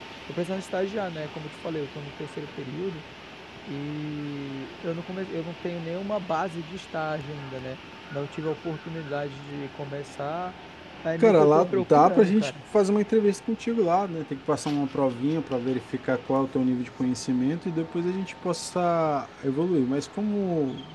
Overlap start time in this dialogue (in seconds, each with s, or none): 11.2 s